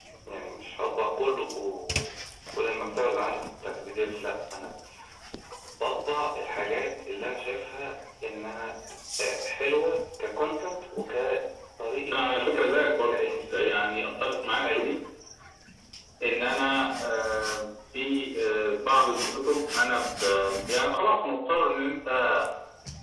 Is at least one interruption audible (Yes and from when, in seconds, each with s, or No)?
Yes, from 12.1 s